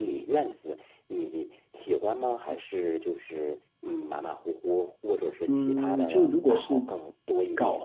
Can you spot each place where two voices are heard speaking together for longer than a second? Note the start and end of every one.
5.5-6.8

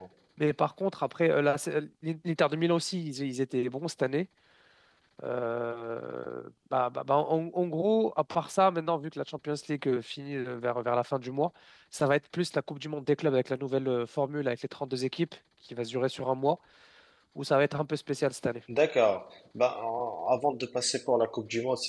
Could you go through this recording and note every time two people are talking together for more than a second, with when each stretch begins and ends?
none

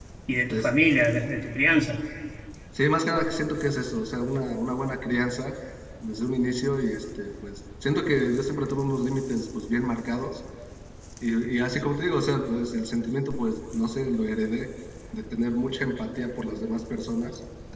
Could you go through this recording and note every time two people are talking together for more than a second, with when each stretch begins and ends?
none

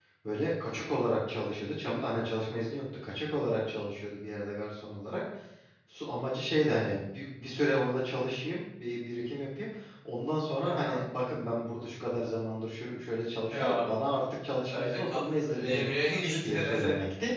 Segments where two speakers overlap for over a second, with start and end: none

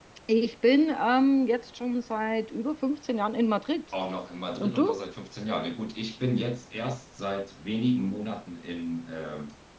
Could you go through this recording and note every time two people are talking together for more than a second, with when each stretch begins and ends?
none

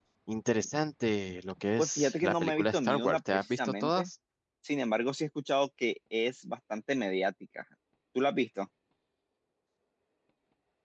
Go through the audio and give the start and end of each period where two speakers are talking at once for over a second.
1.8-4.1

